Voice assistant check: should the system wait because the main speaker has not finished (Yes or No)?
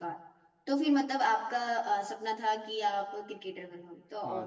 No